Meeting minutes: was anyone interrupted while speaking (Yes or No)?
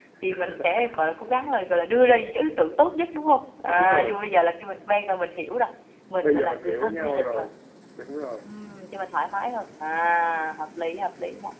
Yes